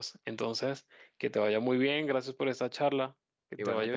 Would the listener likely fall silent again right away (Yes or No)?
No